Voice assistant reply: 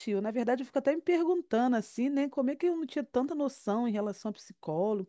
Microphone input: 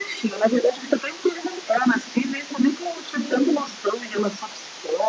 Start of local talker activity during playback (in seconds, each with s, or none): none